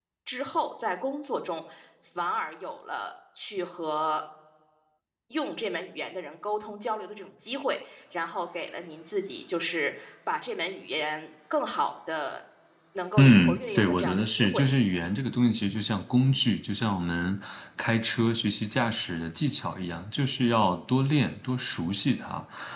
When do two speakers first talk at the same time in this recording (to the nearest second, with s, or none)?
13 s